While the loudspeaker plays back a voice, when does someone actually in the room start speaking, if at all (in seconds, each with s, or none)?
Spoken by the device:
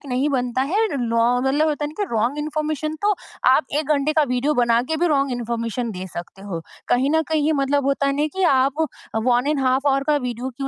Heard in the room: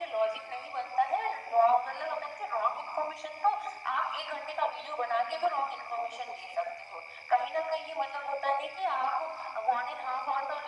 none